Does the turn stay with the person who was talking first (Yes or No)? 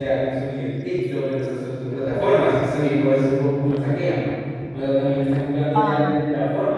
Yes